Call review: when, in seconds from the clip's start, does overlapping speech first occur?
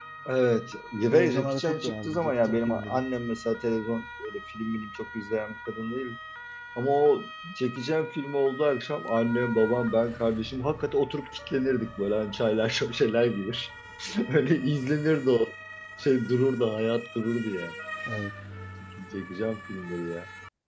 1.1 s

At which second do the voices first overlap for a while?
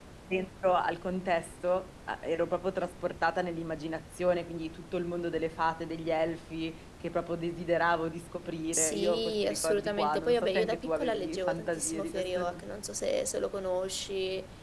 8.7 s

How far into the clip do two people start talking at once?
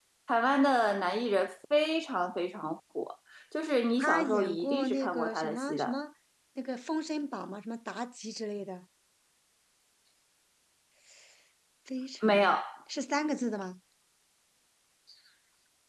4.0 s

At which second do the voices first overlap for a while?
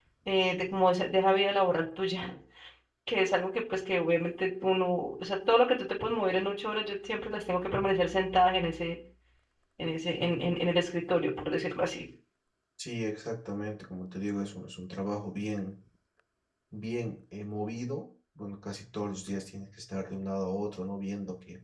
none

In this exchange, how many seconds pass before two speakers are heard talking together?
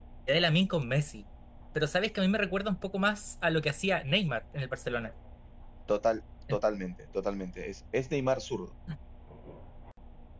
none

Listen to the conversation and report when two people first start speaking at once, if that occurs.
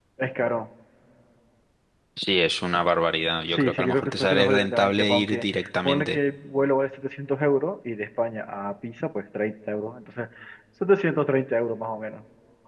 3.5 s

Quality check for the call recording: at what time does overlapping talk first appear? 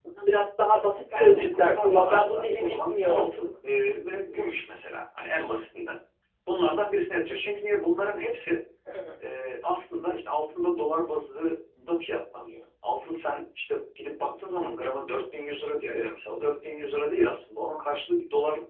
1.1 s

